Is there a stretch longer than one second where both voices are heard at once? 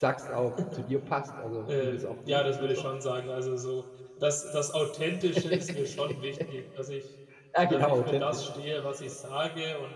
Yes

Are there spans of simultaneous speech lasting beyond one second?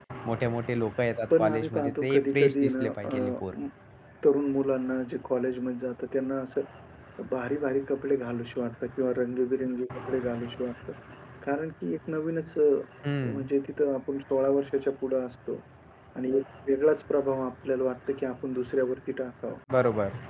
Yes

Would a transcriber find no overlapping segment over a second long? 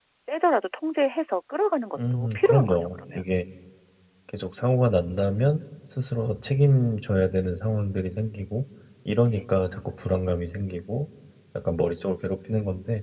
No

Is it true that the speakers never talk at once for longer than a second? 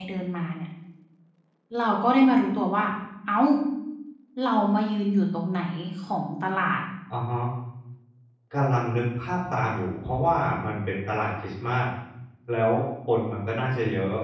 Yes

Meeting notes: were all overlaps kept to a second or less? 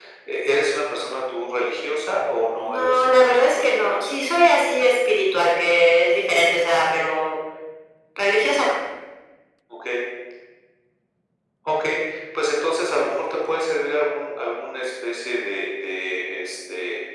No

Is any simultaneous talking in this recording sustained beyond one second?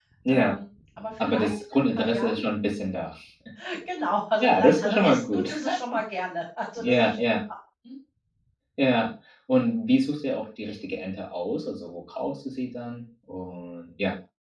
Yes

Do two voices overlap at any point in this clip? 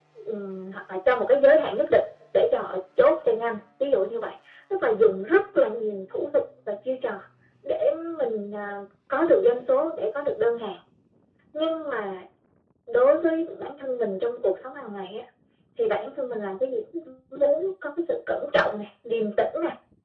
No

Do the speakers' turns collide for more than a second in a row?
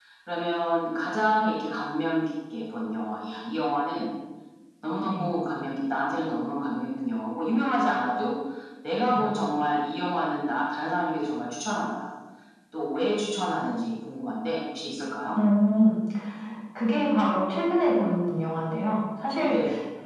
No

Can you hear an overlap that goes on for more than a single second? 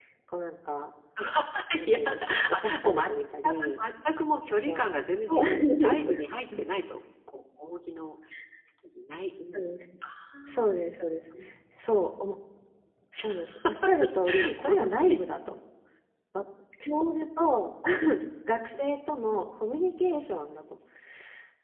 Yes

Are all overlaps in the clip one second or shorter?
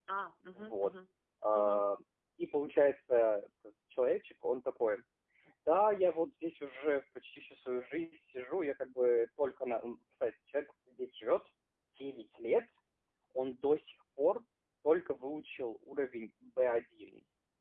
Yes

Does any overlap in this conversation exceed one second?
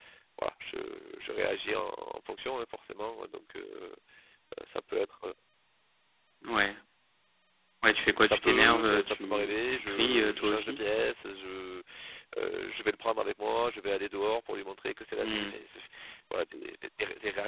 Yes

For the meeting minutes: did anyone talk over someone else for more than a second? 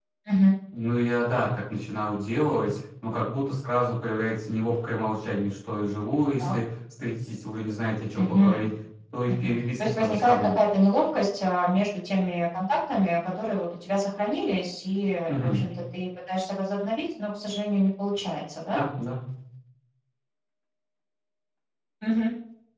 Yes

